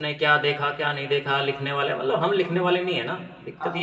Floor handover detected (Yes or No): Yes